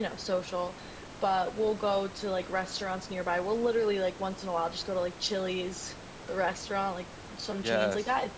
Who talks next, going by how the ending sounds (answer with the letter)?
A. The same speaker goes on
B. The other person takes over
A